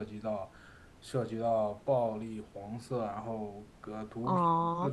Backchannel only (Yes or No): No